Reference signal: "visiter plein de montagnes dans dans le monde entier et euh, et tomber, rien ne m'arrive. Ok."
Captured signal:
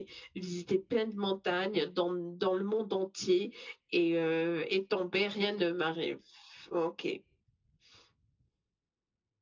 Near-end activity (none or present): none